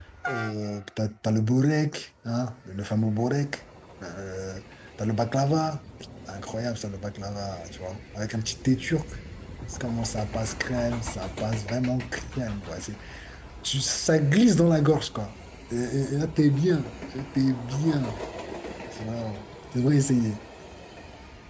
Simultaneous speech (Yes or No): No